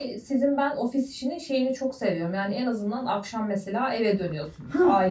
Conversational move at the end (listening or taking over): taking over